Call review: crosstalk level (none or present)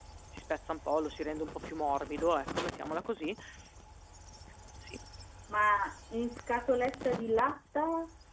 none